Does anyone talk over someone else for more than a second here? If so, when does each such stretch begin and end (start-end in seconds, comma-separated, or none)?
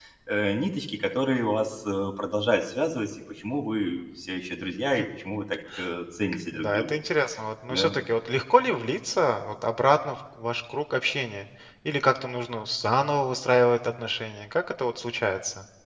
none